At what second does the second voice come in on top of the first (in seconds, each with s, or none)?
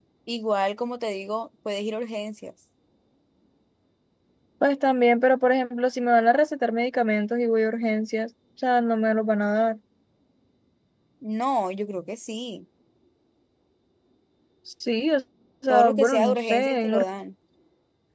15.7 s